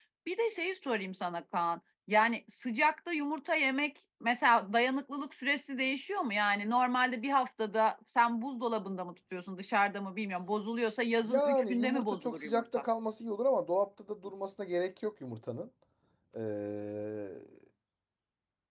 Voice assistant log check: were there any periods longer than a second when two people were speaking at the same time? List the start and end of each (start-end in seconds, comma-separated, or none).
11.3-12.6